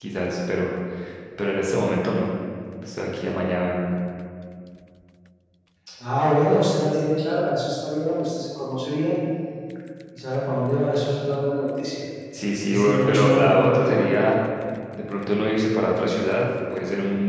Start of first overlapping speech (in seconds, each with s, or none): 12.7 s